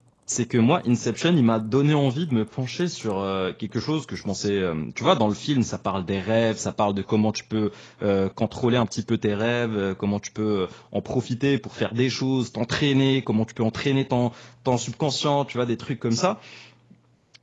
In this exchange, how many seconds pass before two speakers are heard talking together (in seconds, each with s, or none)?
none